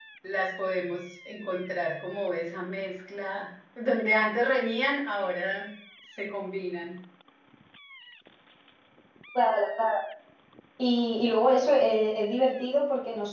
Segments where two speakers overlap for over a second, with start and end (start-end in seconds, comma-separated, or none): none